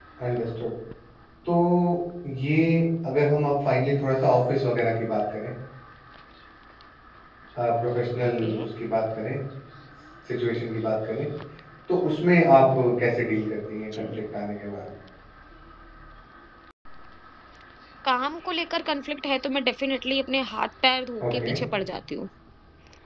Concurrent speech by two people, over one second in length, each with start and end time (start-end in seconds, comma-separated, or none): none